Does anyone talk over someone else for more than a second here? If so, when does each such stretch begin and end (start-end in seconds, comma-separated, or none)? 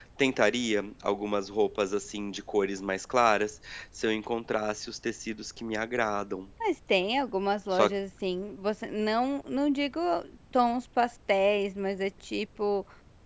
none